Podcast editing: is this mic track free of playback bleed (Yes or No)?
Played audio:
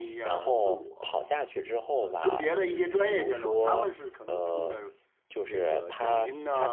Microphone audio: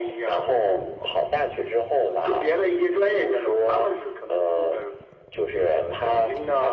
No